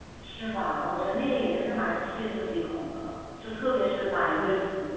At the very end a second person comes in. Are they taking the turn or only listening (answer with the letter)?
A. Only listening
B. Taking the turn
A